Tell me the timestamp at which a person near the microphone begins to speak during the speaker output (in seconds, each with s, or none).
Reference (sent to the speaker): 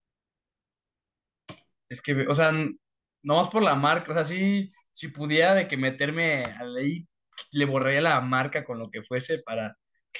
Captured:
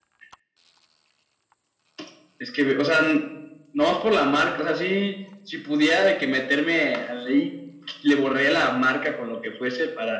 none